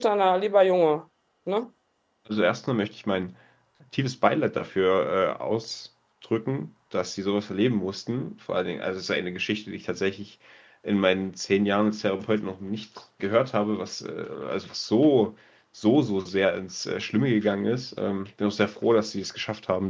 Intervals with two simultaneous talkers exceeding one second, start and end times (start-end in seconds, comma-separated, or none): none